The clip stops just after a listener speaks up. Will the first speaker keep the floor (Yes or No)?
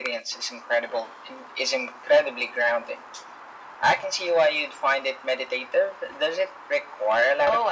No